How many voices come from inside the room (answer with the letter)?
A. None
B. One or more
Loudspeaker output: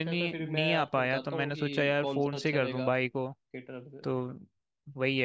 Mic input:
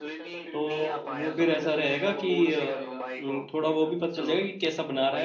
B